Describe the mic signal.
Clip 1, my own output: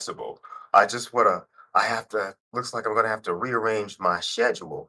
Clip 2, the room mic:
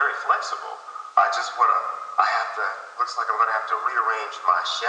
echo only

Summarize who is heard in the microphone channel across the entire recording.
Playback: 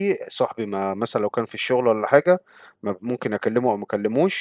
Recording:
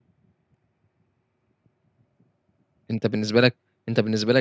user only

